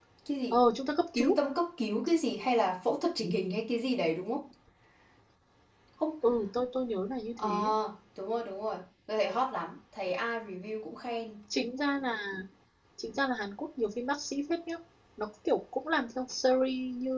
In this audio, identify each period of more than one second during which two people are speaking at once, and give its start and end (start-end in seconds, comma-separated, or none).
none